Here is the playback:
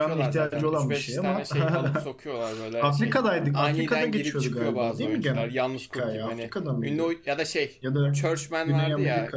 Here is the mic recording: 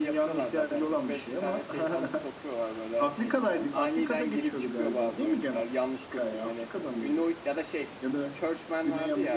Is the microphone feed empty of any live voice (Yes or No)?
Yes